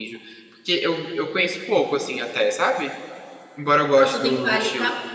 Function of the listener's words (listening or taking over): taking over